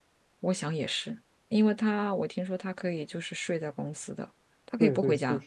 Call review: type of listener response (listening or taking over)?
taking over